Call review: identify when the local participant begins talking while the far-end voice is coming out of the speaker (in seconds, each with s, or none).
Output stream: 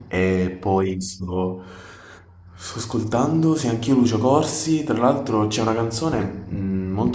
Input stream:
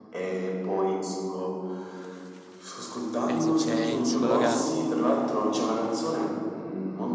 3.2 s